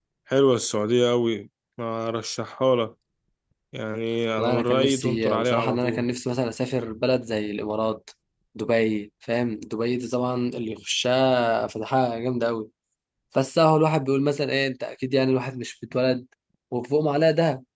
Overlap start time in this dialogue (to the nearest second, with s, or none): 4 s